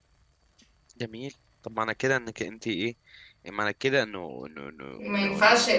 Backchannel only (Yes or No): No